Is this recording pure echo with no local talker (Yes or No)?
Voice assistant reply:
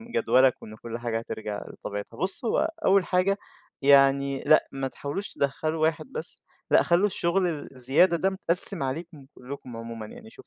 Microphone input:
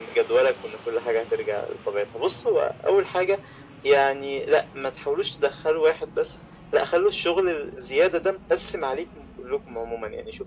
Yes